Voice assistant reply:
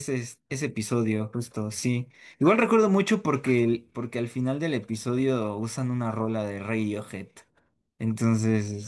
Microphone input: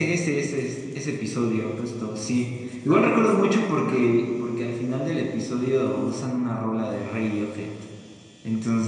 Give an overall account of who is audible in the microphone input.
echo only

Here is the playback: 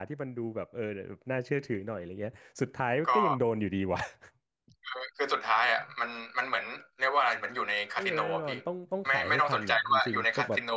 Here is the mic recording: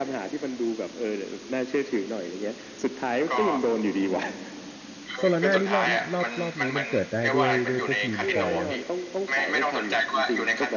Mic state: both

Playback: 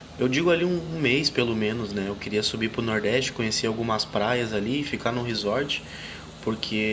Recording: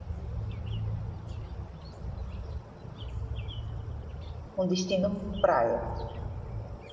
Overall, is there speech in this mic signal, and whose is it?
user only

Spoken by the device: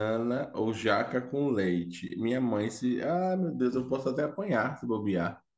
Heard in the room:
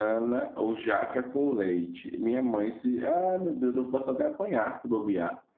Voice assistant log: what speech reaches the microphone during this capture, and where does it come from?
echo only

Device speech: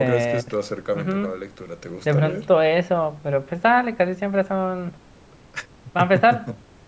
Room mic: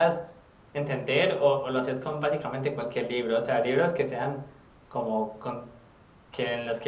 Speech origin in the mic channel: user only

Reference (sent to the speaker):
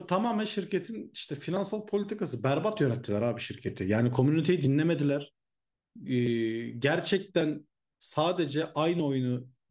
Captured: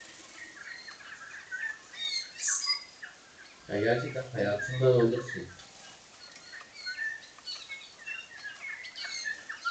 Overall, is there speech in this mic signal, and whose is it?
user only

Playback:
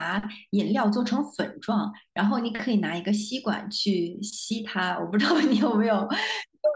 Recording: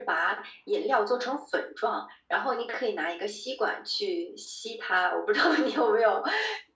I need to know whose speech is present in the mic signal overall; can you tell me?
echo only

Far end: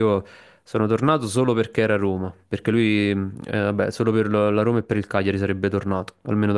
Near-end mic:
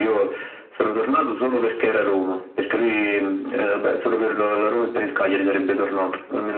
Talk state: echo only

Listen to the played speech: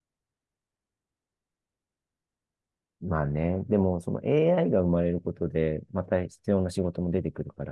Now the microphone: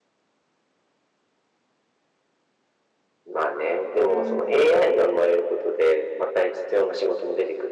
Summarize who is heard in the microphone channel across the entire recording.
both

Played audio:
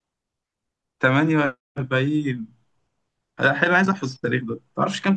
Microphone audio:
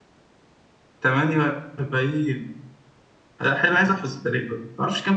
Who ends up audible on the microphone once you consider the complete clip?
echo only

